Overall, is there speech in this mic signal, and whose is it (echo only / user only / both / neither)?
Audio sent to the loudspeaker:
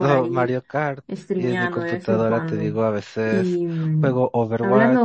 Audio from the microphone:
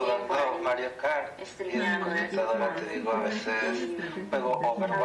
both